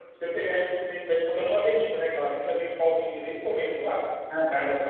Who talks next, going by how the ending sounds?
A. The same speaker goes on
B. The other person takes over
A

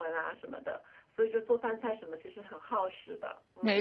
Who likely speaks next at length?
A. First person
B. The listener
B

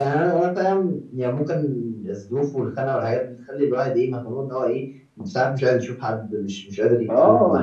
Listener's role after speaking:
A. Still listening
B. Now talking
B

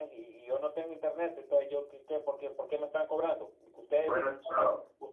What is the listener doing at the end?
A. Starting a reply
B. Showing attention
B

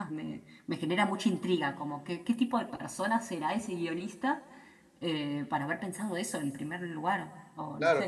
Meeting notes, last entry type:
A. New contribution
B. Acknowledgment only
A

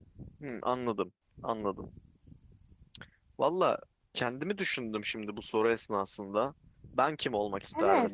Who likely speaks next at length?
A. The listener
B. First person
A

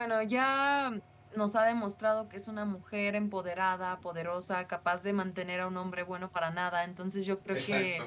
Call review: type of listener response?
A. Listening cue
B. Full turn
A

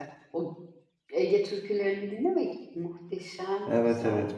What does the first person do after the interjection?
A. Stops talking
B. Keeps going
A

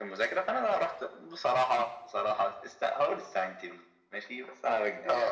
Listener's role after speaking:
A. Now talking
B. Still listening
A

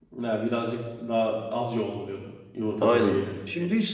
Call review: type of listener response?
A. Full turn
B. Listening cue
A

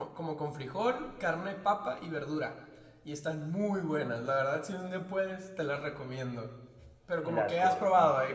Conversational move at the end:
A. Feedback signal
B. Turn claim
B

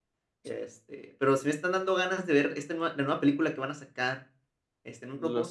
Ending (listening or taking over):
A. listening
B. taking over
A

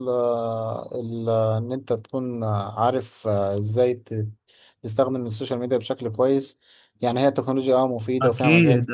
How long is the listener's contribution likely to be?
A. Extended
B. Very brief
A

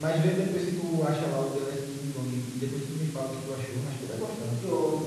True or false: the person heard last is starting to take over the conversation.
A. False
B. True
B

